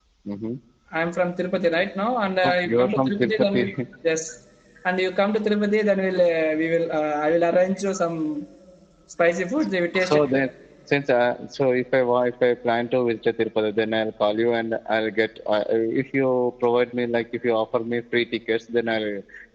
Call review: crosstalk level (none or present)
present